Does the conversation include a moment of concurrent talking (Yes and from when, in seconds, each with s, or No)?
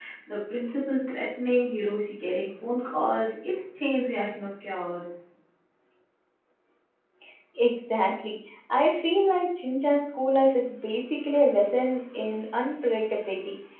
No